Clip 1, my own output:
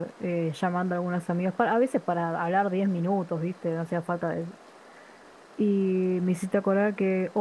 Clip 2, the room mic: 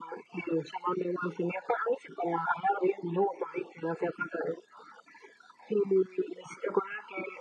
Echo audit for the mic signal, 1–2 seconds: echo only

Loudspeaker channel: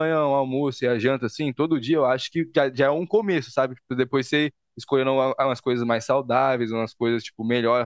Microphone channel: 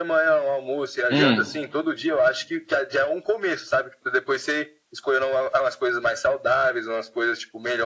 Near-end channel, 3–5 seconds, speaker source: echo only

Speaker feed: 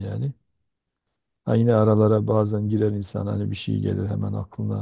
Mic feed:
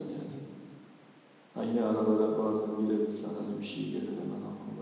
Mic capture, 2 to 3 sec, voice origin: echo only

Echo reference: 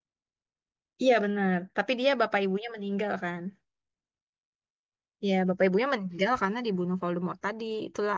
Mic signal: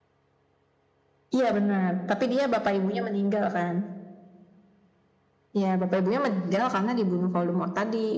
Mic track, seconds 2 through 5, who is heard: echo only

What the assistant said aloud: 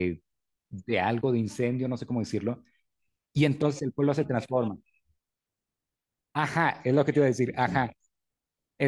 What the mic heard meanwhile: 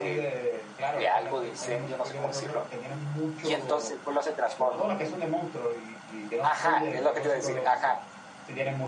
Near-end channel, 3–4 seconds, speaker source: both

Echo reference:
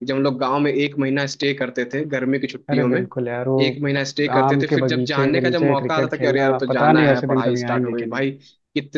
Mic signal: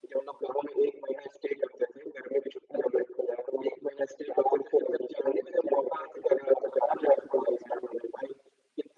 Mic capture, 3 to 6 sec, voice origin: echo only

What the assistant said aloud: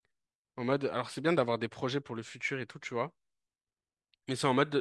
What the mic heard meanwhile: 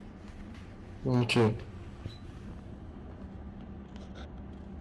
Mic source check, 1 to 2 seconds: user only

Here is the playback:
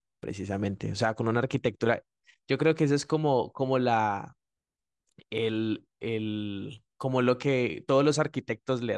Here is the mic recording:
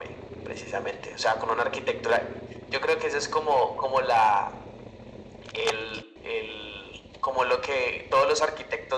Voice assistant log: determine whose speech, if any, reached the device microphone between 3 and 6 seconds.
echo only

